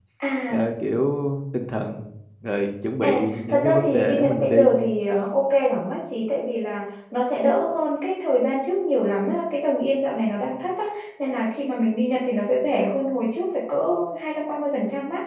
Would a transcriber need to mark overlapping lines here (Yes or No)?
Yes